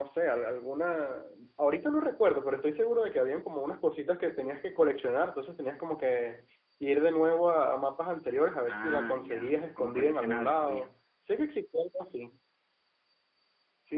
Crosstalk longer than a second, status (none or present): present